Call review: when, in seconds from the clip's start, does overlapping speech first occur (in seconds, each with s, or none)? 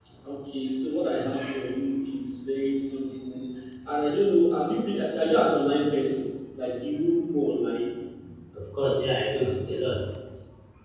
none